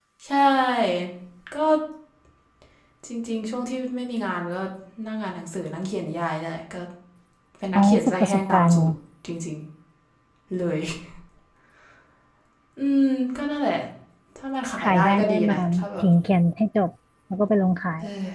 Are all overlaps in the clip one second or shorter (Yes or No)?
No